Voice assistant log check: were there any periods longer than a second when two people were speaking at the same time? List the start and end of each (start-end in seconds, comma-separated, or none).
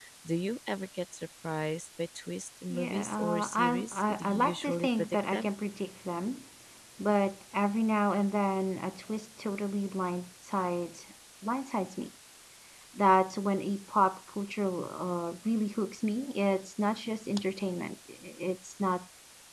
2.7-5.5